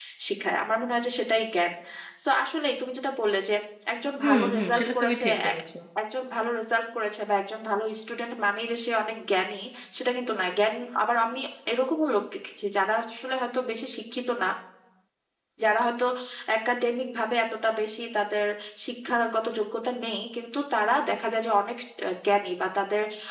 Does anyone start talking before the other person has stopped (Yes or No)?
Yes